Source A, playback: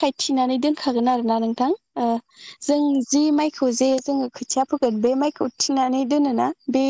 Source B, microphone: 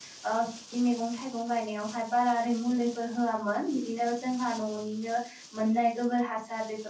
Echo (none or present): none